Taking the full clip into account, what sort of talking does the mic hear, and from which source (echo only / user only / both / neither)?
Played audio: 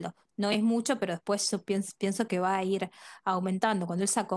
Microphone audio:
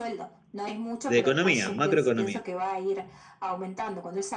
both